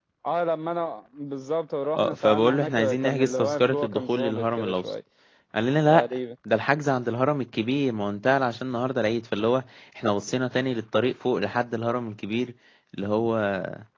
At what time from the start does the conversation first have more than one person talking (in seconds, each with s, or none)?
2.0 s